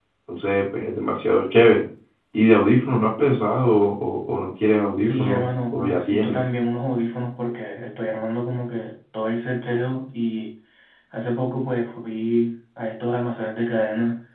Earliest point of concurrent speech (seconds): 5.0 s

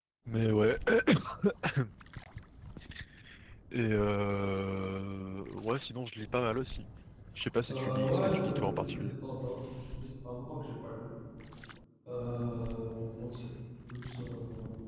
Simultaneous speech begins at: 7.7 s

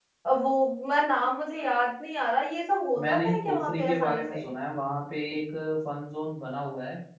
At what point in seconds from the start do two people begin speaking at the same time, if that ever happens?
3.0 s

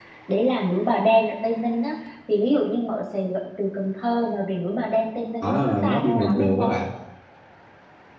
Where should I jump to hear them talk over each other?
5.4 s

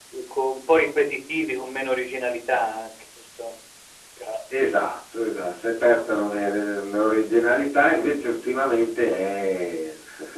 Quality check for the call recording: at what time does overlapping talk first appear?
none

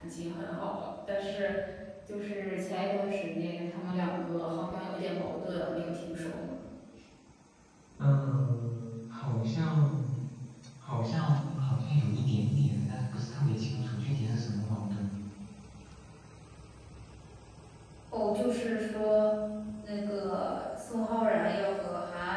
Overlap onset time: none

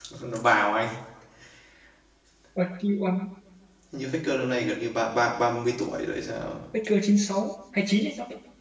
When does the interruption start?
none

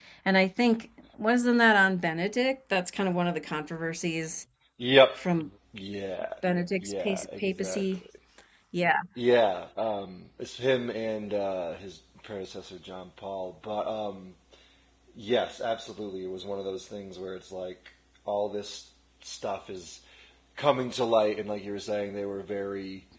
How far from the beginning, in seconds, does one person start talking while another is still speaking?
6.8 s

